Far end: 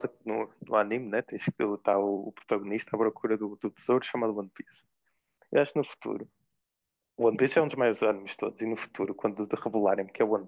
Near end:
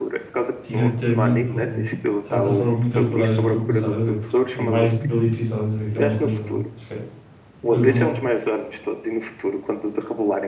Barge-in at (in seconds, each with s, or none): 0.6 s